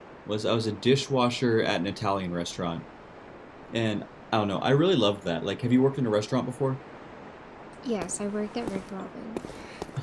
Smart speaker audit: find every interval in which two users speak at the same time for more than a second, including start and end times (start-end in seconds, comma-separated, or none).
none